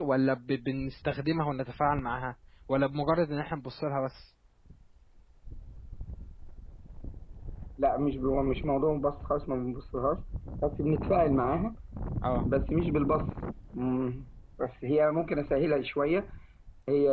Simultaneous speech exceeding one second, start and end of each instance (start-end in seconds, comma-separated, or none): none